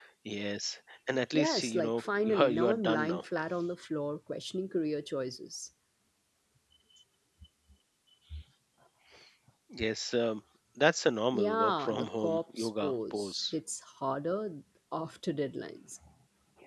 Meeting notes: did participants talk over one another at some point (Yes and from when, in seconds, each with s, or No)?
Yes, from 1.3 s